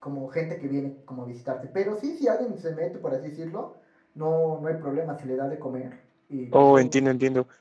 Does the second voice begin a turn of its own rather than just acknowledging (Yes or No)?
Yes